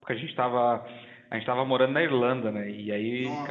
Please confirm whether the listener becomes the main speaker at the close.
No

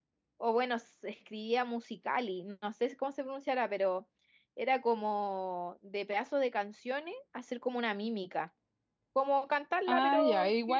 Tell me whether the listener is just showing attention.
No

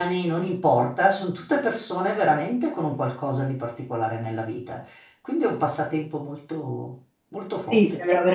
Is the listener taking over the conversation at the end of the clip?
Yes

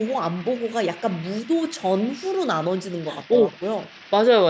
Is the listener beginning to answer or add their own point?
Yes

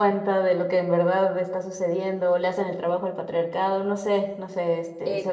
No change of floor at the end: No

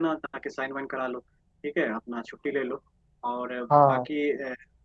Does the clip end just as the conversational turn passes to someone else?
No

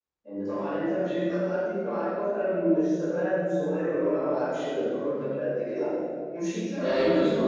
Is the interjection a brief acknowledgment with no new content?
No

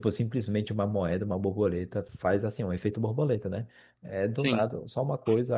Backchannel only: Yes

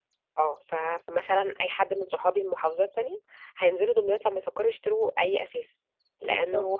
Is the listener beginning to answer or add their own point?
No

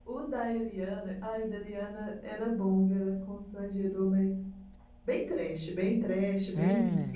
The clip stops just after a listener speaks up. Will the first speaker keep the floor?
Yes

